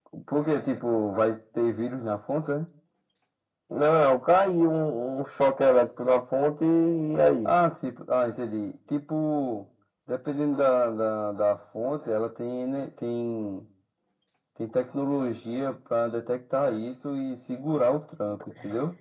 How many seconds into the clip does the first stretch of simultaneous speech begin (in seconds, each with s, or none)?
none